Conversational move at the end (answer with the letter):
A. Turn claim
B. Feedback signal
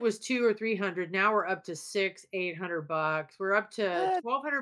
B